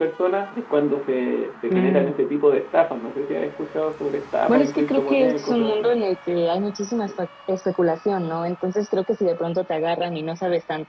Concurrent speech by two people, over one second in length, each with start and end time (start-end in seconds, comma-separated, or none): 4.5-5.9